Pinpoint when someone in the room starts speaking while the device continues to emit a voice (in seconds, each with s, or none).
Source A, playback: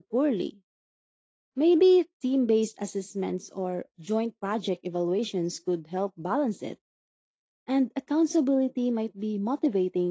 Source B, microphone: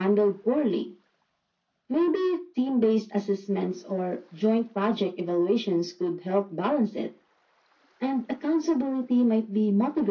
none